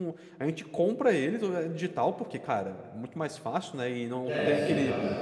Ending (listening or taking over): taking over